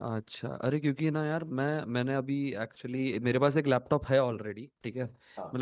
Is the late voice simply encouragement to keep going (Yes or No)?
Yes